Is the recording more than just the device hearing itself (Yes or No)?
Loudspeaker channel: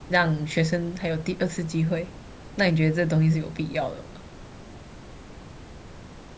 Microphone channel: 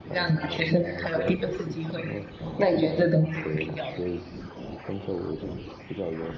Yes